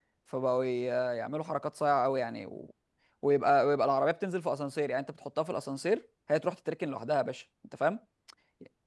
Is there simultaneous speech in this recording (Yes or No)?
No